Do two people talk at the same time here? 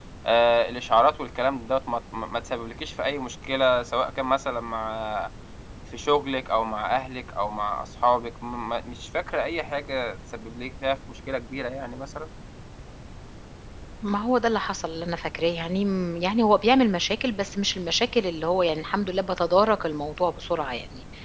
No

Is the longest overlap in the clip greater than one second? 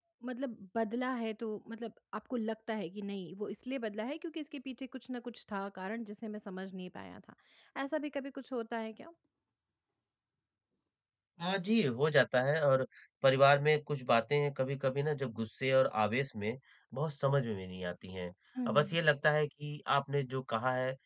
No

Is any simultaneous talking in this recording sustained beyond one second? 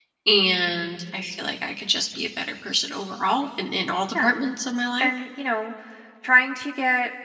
No

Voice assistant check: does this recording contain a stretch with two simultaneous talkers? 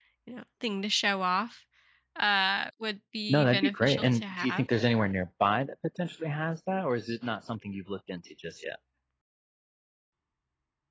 Yes, from 3.3 s

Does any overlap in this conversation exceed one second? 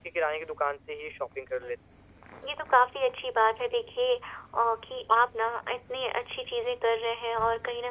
No

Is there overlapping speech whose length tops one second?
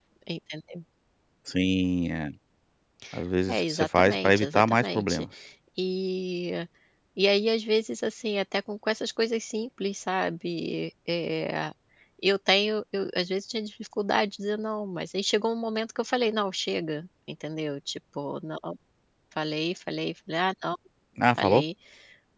Yes, from 3.5 s

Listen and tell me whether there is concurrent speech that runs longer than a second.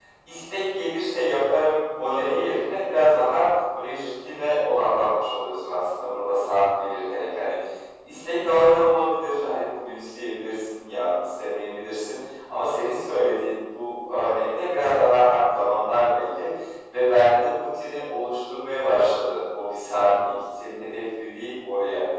No

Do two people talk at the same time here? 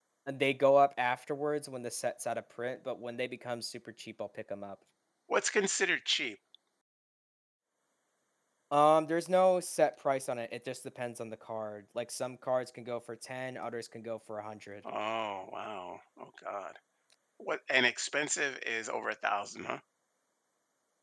No

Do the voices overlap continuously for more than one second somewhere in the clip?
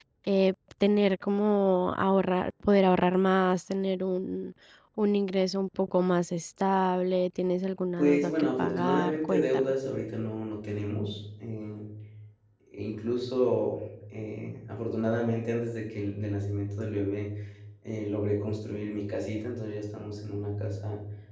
Yes, from 8.0 s

